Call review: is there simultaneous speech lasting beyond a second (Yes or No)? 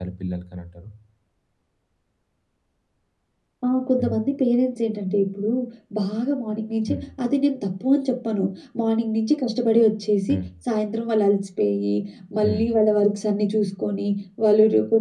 No